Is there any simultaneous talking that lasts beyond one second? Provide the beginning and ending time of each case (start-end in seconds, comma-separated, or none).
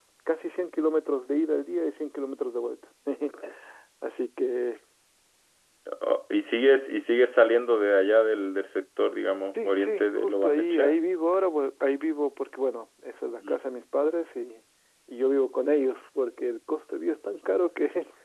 9.6-11.0